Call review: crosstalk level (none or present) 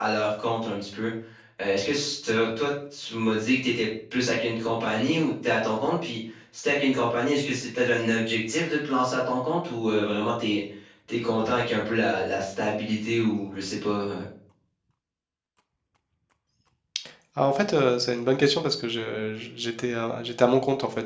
none